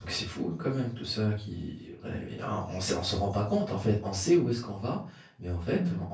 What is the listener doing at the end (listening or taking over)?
listening